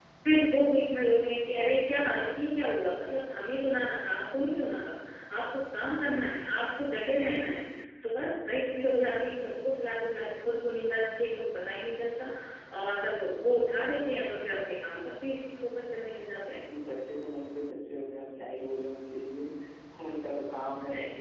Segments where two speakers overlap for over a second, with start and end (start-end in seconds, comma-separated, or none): none